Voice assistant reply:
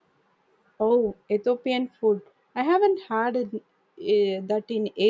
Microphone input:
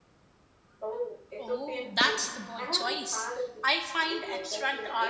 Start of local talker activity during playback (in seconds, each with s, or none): 1.4 s